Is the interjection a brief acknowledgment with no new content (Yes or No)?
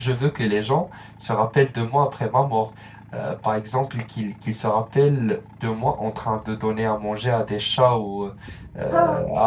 Yes